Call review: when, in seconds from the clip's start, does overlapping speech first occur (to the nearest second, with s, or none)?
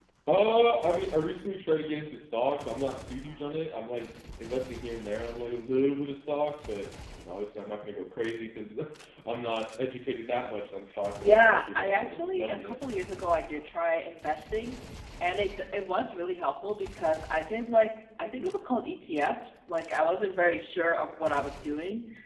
11 s